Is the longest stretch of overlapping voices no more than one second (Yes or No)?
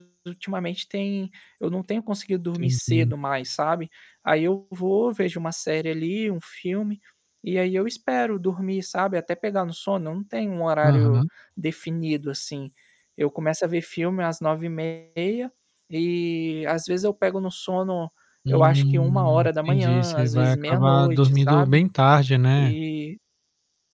No